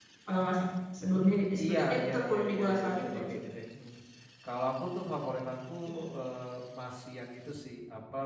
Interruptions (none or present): present